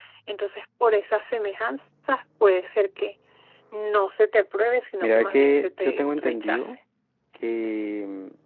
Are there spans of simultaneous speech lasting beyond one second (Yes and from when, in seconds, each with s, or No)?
Yes, from 5.0 s